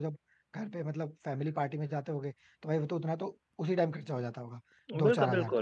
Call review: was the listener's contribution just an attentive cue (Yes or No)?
No